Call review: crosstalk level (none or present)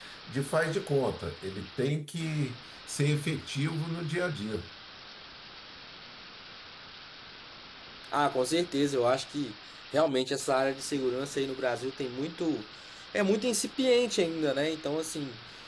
none